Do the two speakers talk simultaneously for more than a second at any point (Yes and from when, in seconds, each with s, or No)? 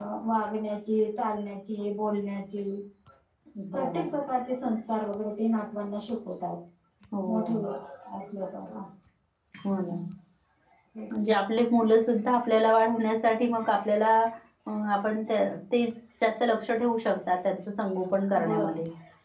No